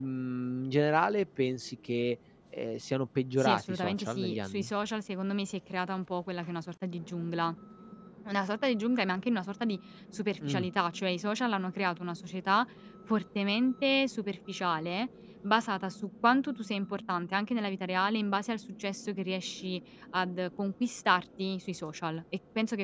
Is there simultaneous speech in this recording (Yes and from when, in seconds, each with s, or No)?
Yes, from 3.4 s